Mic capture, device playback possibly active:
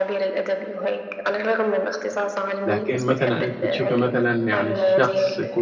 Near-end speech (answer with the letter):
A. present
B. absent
A